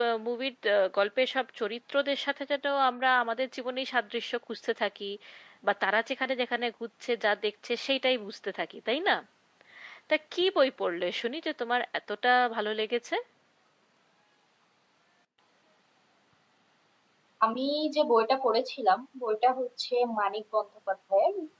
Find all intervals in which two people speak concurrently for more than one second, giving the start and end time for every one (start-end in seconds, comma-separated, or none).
none